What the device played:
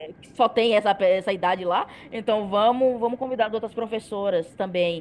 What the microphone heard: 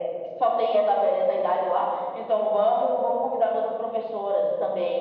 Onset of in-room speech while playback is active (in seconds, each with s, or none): none